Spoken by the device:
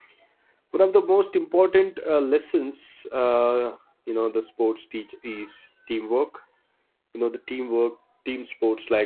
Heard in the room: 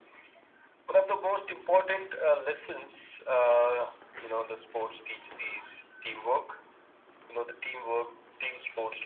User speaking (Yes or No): No